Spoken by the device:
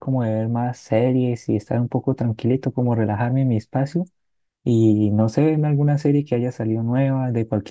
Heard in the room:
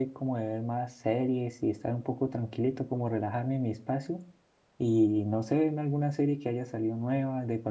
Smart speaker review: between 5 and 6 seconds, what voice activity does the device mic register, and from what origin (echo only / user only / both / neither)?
echo only